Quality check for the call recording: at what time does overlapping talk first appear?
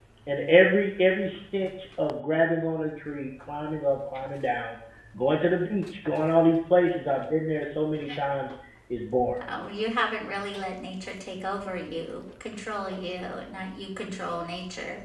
none

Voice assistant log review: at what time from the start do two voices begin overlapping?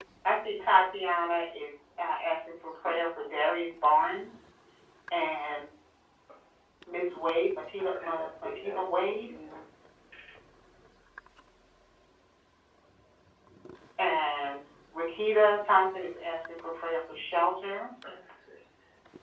7.8 s

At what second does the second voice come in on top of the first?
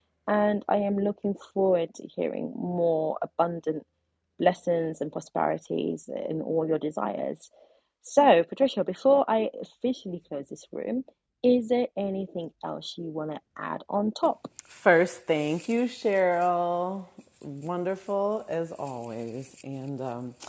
none

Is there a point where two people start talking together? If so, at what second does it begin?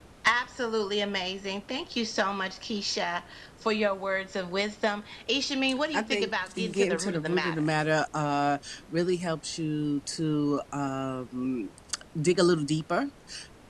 5.7 s

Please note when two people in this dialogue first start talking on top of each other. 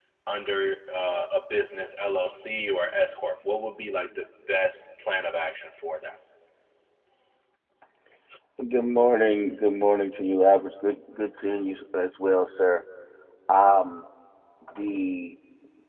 none

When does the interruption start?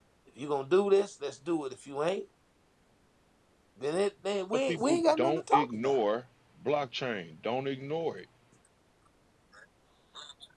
4.7 s

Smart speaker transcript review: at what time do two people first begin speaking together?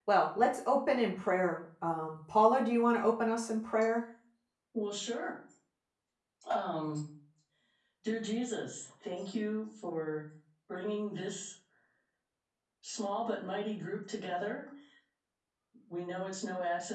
none

